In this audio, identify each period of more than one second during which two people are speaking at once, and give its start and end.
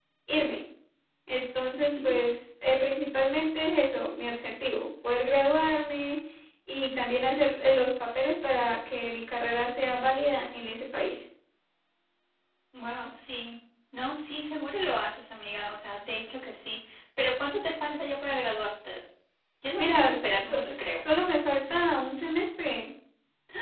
19.8-21.0

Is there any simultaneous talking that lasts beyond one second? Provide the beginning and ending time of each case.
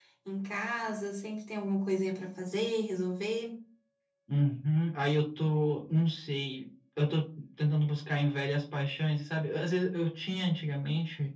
none

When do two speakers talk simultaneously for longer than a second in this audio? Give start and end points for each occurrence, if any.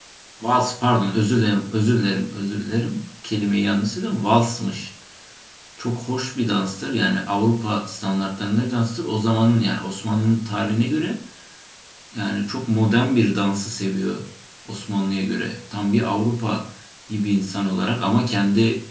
none

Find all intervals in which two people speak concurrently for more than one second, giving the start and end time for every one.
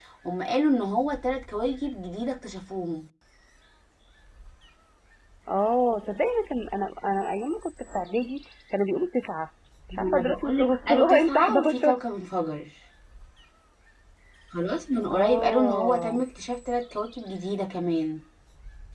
9.9-11.9, 15.0-16.2

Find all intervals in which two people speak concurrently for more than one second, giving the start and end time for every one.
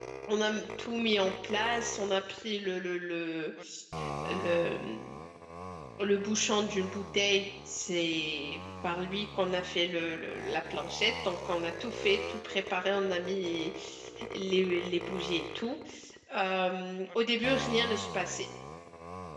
none

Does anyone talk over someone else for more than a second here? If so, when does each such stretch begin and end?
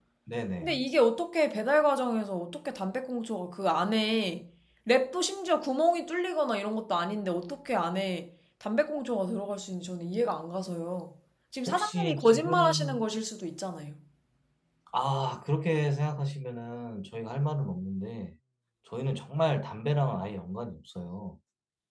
11.7-13.0

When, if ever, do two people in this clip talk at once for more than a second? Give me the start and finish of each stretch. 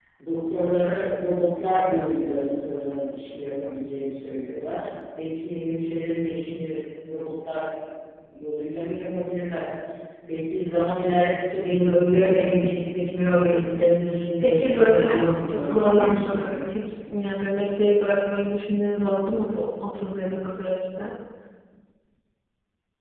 14.4-16.6

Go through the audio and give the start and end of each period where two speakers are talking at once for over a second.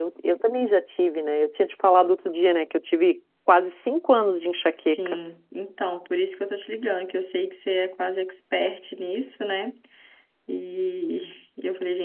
none

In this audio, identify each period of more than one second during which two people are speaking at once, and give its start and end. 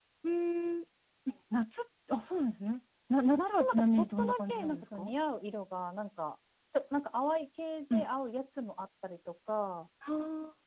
3.4-5.1

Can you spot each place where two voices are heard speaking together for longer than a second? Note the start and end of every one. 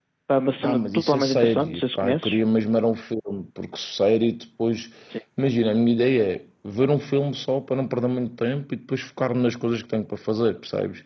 0.6-2.4

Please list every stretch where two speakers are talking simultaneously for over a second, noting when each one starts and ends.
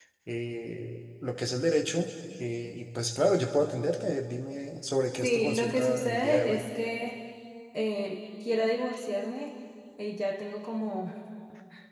5.2-6.7

